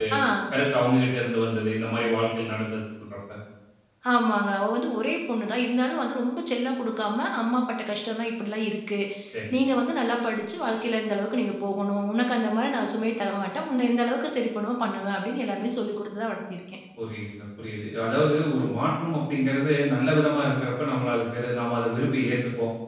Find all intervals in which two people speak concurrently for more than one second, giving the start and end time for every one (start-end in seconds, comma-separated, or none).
none